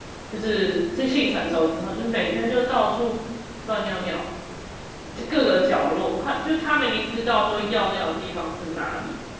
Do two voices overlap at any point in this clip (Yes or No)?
No